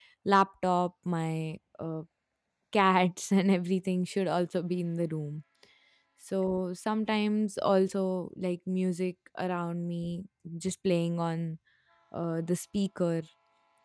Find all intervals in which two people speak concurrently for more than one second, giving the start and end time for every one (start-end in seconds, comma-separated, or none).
none